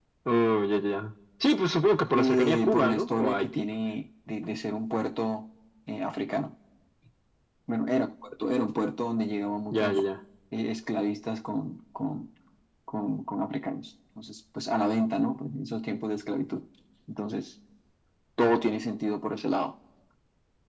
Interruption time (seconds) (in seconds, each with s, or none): 2.2 s